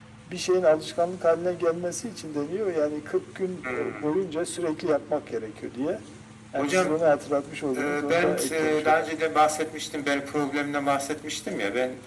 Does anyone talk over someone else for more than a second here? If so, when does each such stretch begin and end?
7.8-9.1

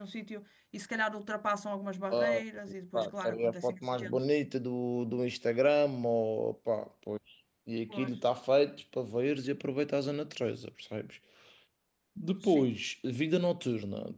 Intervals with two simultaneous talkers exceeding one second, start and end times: 2.9-4.2

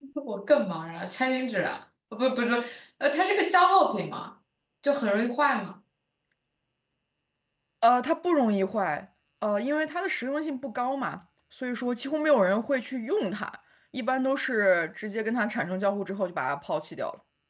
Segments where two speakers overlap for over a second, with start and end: none

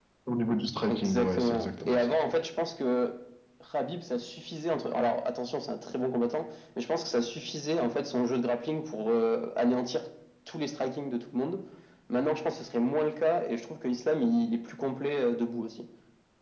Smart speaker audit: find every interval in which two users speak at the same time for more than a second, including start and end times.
0.9-2.1

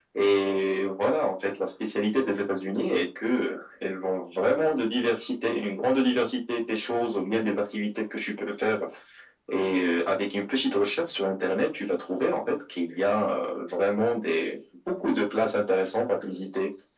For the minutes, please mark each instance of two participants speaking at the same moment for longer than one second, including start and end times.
none

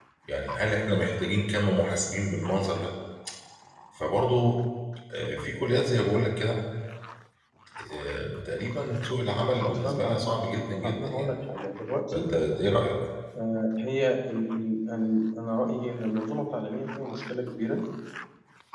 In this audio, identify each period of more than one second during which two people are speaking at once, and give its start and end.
9.4-11.3

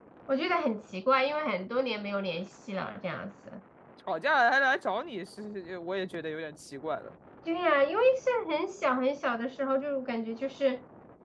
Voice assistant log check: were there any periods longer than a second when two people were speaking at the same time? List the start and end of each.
none

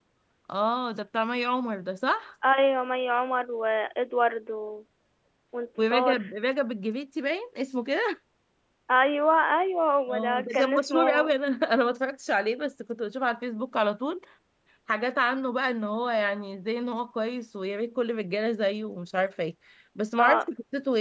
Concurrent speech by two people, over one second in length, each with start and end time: 10.1-11.3

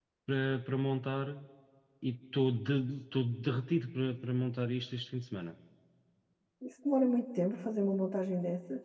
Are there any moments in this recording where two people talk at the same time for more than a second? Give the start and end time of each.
none

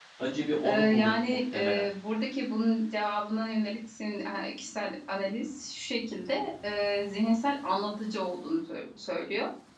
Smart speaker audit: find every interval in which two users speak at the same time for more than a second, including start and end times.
0.6-1.8

